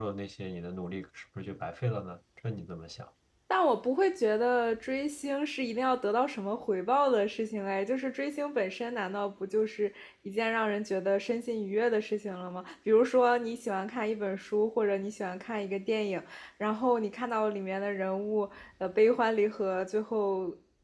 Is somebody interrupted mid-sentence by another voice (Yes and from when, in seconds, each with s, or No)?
No